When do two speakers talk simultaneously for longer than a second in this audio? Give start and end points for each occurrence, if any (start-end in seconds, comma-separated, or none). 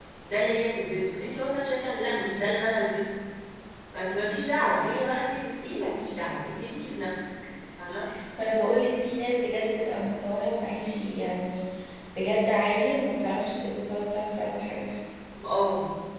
none